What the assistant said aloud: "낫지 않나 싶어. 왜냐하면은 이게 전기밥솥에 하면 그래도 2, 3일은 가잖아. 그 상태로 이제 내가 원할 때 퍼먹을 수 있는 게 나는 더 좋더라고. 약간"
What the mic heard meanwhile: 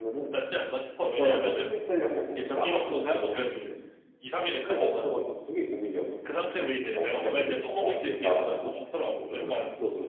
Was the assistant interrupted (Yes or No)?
Yes